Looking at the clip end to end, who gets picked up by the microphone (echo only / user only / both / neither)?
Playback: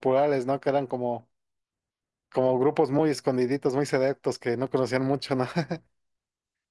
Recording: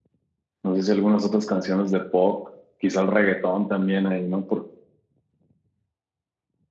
user only